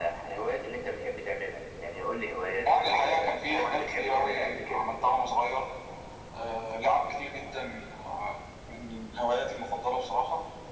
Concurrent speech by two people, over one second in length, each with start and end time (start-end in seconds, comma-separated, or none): 2.6-4.8